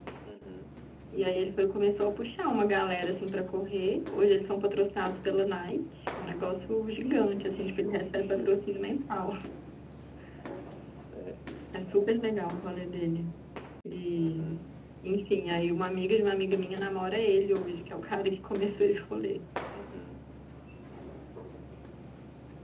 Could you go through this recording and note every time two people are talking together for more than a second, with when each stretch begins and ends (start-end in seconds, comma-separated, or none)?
7.0-8.5